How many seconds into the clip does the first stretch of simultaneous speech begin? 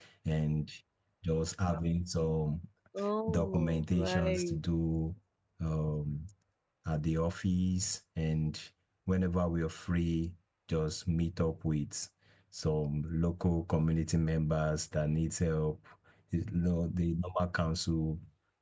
3 s

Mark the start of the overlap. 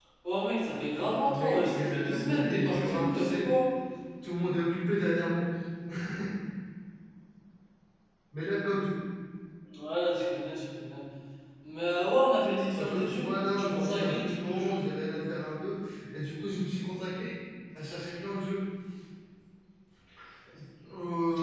1 s

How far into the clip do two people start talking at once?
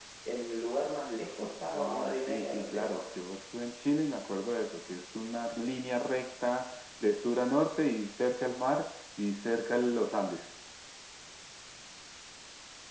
2 s

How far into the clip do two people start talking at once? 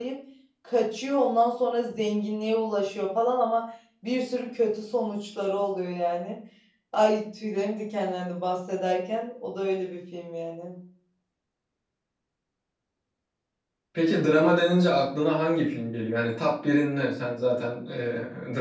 none

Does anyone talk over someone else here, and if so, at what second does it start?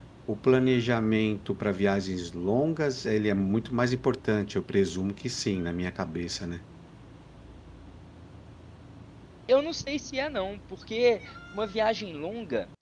none

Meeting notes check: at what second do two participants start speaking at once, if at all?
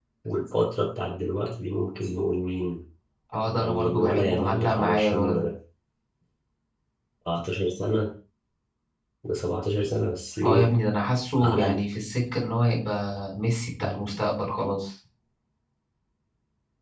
3 s

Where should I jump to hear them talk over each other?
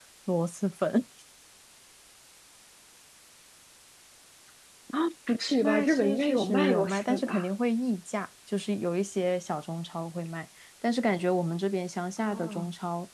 6 s

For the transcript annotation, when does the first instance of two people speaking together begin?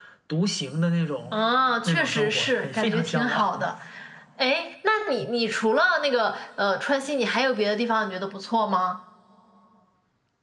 2 s

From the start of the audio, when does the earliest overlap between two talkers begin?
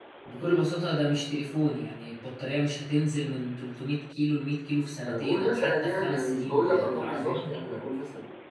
5 s

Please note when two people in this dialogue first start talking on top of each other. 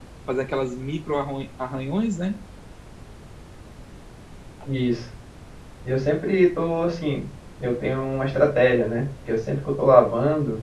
none

